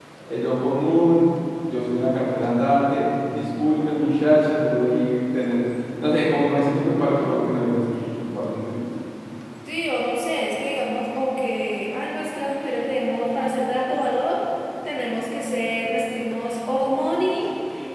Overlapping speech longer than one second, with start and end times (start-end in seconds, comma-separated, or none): none